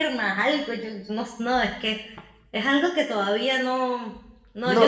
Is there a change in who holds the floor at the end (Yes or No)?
Yes